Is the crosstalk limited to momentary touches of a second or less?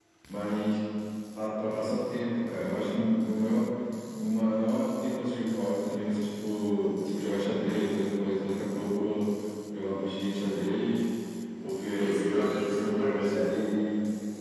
No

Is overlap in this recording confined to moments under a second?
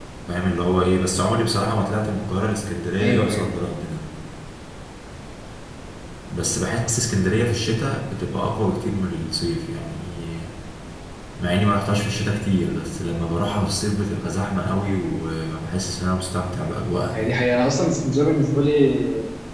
Yes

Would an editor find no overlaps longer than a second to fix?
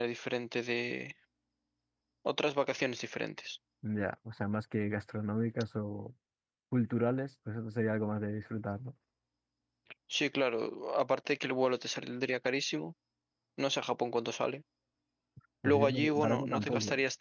No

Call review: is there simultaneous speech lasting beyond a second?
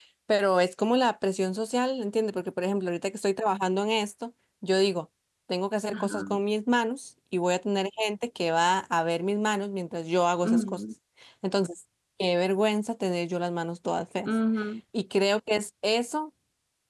No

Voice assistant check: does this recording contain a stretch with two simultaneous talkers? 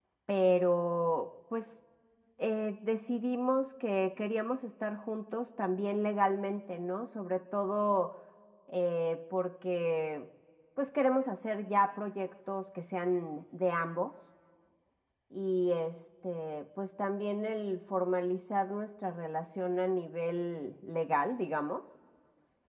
No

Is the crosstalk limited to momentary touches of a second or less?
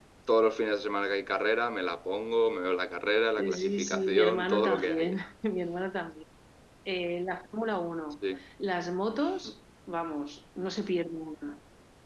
No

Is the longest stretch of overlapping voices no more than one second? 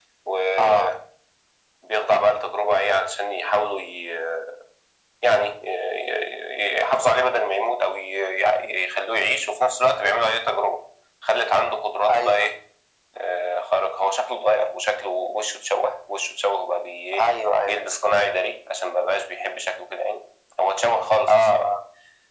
Yes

